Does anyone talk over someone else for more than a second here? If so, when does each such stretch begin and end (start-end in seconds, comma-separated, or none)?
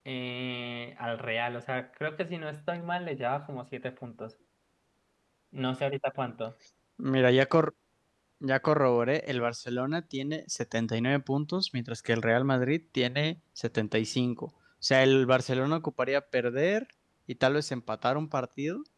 none